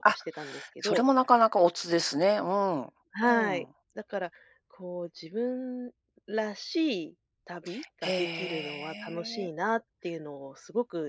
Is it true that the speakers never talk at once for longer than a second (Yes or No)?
No